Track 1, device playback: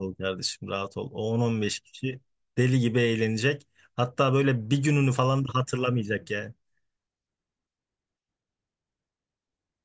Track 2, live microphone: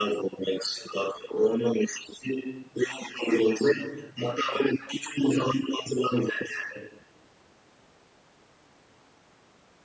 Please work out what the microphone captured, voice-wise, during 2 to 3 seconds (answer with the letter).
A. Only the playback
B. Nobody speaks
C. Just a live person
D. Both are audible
A